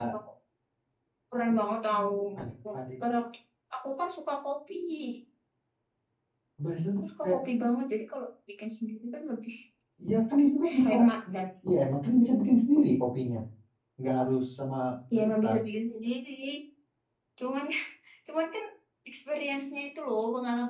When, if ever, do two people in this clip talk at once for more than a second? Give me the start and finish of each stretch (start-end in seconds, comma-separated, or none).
none